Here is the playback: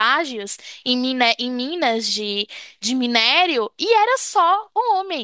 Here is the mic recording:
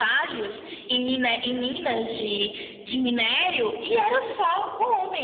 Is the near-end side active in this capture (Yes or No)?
No